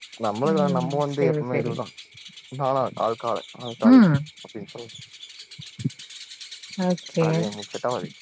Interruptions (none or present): present